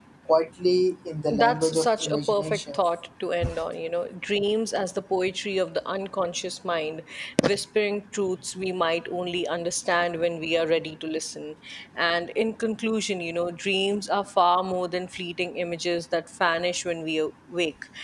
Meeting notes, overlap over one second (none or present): present